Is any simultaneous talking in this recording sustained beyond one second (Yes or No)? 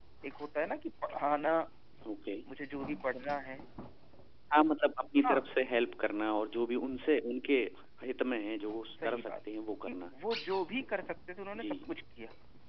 No